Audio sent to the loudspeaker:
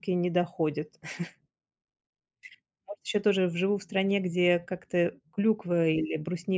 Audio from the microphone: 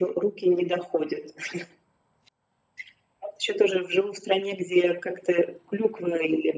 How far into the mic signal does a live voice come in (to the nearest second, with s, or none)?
none